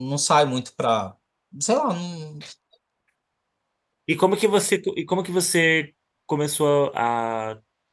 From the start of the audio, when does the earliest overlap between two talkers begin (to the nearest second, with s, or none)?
none